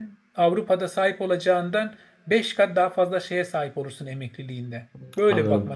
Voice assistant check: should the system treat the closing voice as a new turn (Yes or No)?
Yes